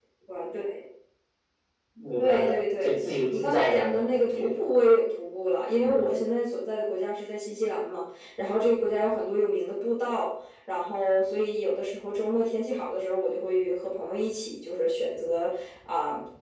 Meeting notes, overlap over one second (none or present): present